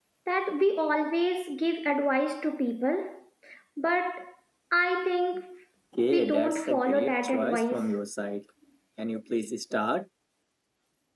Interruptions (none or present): present